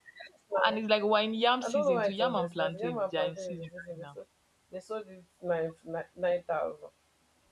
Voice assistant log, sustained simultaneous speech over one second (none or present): present